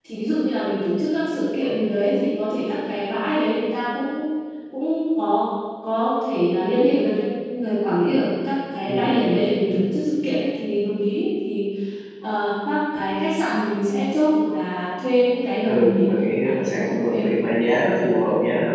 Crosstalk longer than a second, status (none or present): present